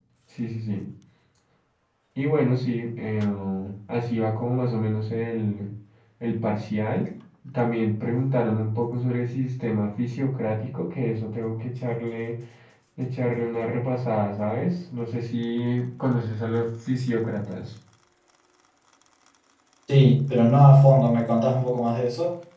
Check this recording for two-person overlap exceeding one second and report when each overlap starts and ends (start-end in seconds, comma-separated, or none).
none